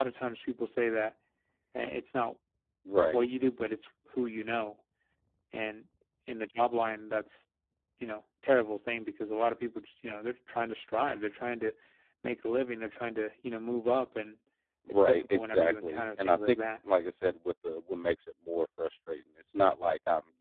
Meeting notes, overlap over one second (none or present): present